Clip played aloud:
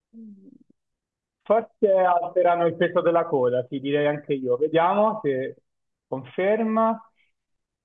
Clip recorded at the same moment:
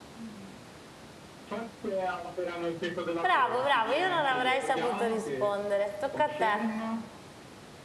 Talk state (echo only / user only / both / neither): both